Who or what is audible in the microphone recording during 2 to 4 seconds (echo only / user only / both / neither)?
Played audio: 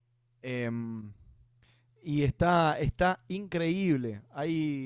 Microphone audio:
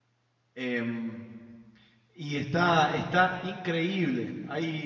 echo only